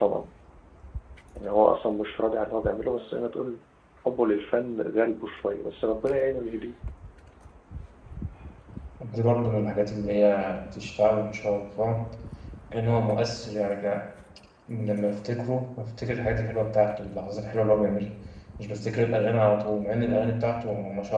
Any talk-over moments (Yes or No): No